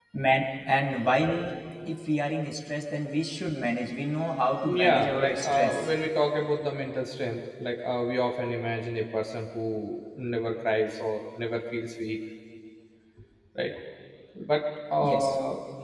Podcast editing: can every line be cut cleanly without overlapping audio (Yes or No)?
No